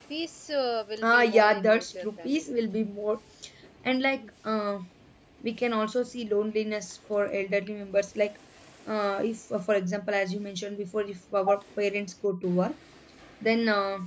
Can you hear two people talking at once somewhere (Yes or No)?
Yes